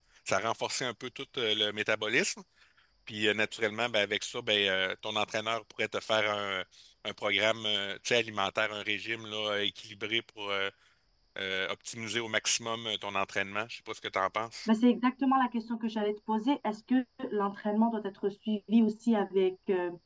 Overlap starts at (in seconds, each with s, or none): none